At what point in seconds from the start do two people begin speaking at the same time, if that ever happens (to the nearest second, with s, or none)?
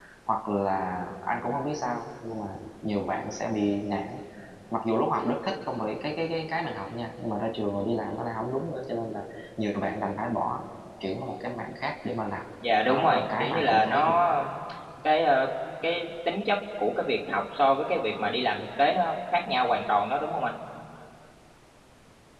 13 s